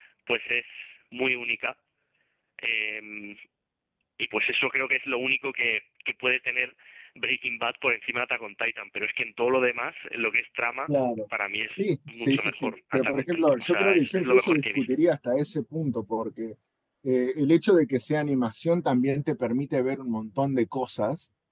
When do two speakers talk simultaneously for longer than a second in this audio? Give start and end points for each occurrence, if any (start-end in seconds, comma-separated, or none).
11.8-14.9